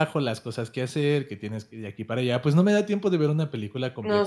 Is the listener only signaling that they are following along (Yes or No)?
No